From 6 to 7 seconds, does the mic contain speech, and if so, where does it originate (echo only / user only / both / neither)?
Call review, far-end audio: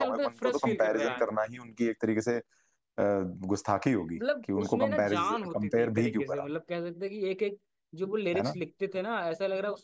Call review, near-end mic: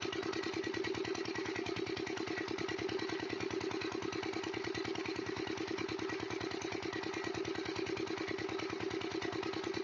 neither